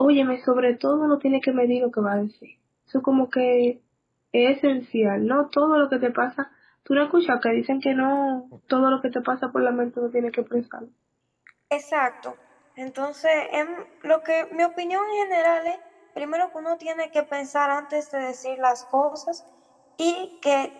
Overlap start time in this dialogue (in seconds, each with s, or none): none